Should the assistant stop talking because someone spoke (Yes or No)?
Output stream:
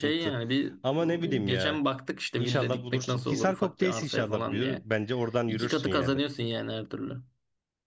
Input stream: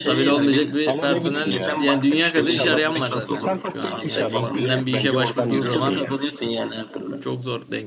Yes